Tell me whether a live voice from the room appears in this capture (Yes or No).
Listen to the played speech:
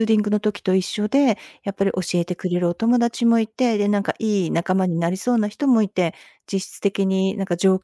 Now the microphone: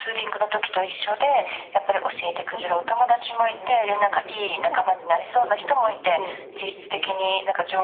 Yes